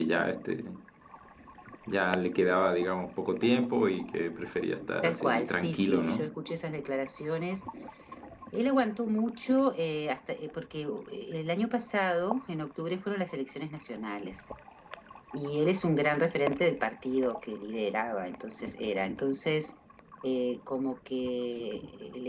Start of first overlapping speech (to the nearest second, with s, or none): 5 s